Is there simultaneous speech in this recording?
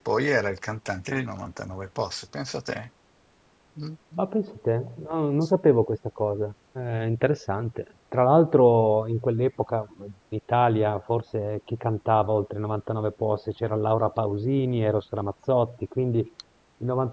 No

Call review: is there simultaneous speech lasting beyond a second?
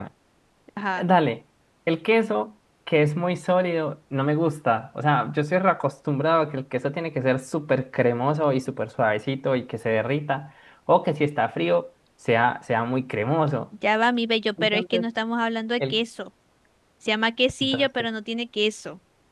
No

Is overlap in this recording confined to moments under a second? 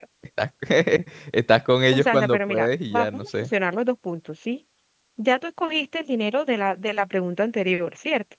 No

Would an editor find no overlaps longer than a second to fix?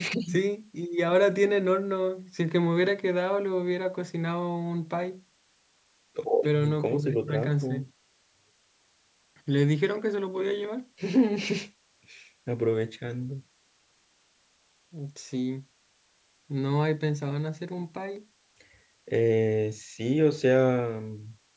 No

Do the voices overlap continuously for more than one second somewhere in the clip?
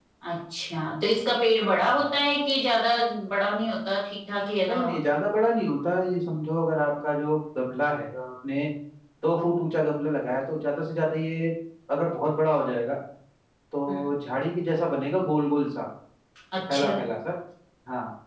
No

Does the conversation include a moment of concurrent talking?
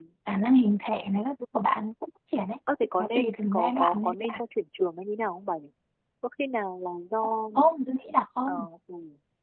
Yes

